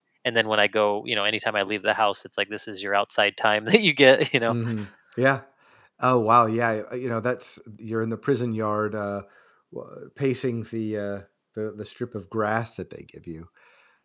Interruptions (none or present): none